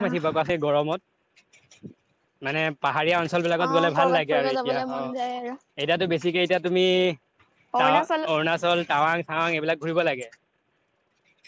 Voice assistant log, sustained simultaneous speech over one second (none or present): present